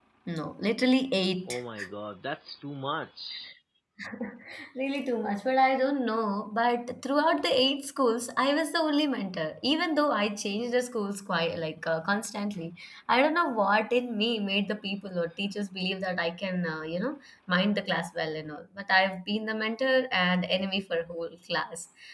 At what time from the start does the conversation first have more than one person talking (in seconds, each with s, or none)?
none